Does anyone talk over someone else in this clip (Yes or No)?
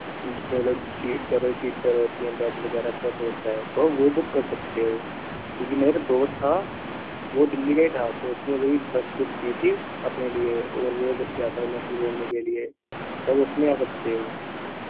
No